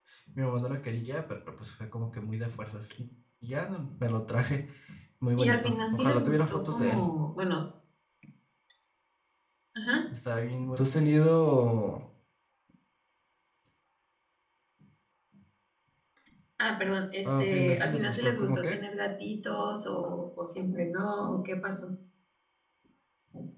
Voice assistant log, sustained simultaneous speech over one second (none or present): present